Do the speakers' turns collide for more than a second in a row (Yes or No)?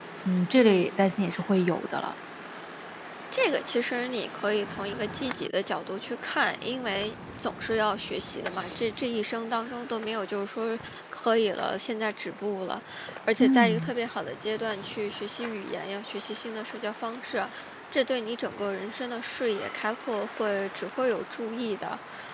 No